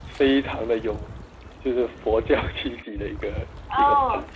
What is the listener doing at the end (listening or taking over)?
taking over